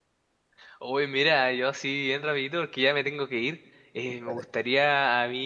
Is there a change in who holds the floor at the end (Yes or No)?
No